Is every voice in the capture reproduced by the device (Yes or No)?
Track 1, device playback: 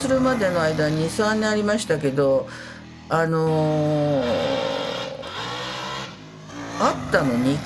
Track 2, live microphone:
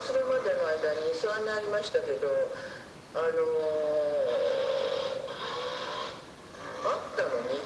Yes